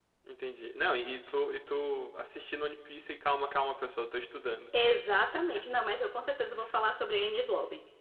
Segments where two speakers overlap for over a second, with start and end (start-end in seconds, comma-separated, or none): none